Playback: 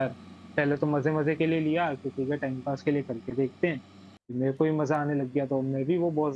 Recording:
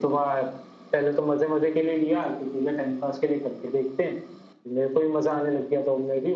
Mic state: echo only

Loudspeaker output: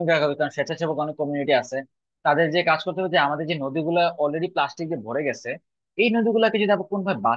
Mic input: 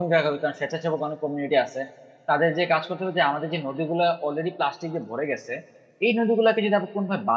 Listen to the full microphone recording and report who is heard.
echo only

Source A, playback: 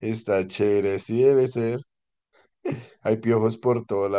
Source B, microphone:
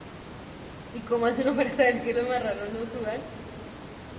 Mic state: user only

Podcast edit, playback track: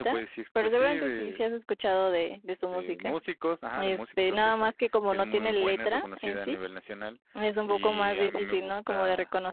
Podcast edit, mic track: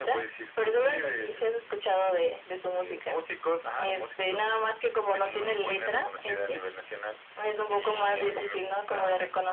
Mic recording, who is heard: echo only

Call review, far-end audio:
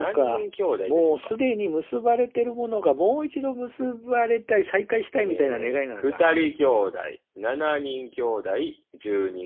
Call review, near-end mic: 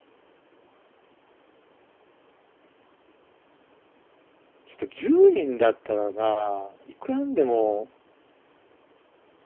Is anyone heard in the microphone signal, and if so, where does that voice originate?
user only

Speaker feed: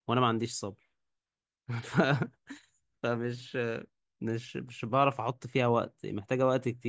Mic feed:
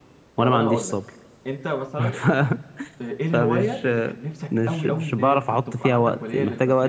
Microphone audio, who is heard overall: both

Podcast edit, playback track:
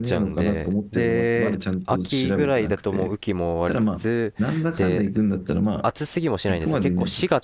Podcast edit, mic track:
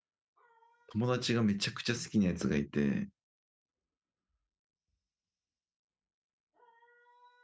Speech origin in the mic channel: user only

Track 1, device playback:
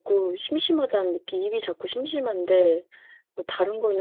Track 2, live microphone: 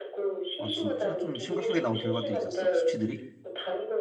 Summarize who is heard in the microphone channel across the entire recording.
both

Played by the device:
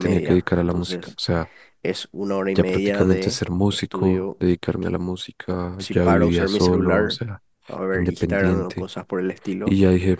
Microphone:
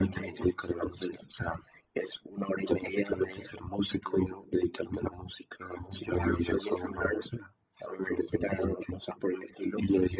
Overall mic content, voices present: echo only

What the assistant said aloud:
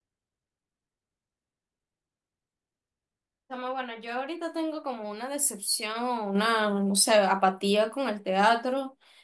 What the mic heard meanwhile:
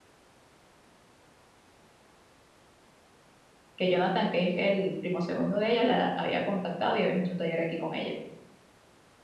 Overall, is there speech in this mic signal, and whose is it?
user only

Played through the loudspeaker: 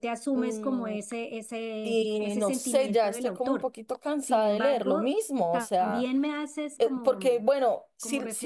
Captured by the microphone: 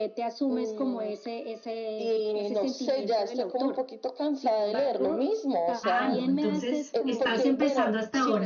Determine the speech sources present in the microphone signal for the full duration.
both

